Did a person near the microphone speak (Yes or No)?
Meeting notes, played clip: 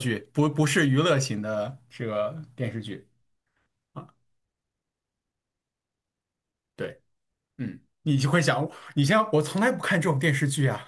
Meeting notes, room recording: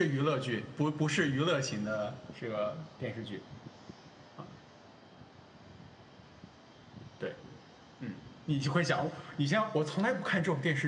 No